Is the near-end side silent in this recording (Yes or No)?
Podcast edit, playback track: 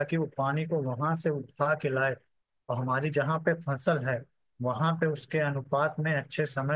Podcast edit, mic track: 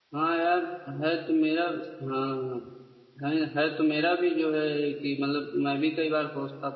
No